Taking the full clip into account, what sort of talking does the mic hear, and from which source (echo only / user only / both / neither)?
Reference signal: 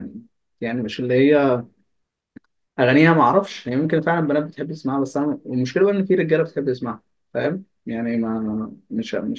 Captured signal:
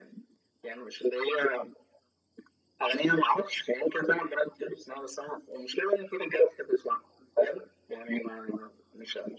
echo only